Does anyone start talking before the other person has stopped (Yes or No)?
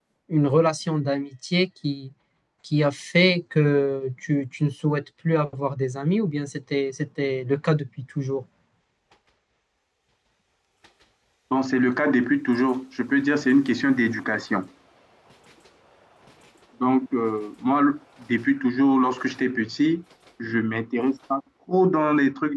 No